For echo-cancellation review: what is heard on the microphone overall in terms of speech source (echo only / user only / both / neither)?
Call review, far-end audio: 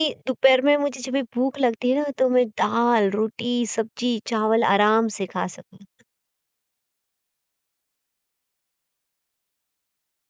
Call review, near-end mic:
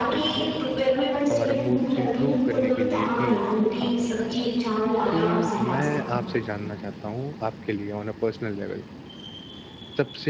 both